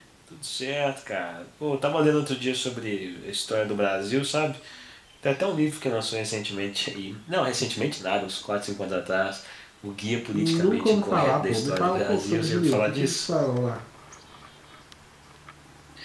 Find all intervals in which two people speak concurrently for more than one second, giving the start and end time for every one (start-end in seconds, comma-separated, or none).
10.3-13.3